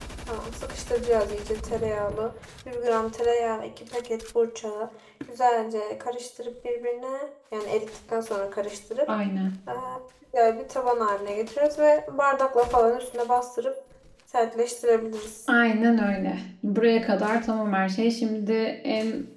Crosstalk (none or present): none